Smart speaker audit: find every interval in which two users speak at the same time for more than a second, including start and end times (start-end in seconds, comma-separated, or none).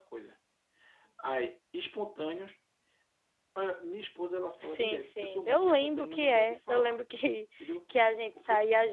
4.6-7.0